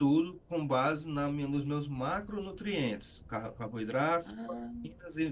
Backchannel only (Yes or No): Yes